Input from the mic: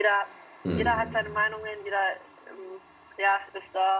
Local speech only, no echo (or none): Mhm.